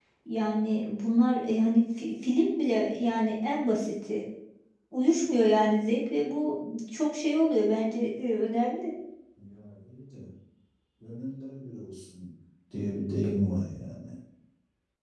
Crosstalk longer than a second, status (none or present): none